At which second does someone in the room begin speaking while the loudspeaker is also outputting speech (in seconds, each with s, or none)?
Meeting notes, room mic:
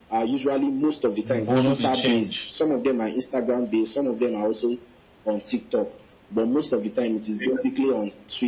1.3 s